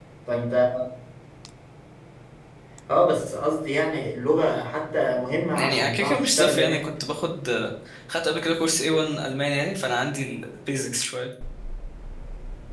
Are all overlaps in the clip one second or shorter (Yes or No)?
No